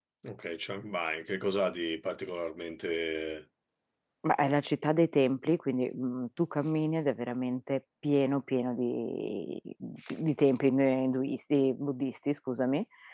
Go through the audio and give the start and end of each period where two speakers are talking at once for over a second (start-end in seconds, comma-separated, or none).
none